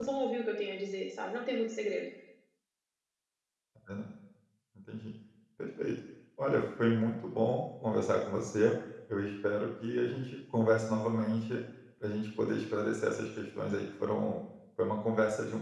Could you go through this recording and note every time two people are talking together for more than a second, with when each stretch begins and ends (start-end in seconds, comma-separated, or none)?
none